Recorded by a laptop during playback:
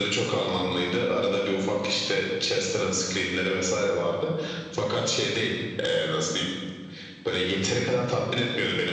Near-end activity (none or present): none